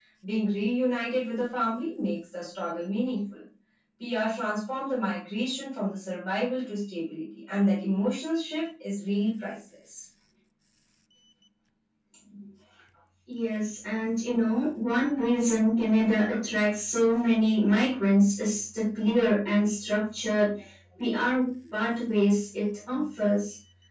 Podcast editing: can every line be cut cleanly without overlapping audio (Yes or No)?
Yes